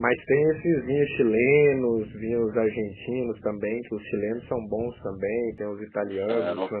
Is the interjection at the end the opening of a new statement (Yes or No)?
No